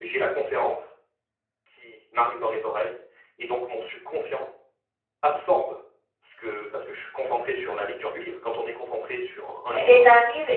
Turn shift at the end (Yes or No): Yes